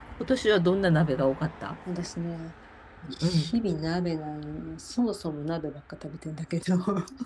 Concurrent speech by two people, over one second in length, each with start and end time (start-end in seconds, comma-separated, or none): none